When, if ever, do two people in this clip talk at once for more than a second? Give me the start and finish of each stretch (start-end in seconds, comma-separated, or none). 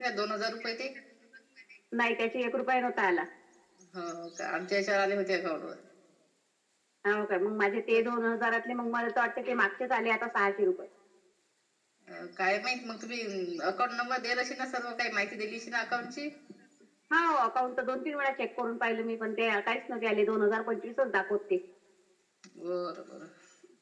none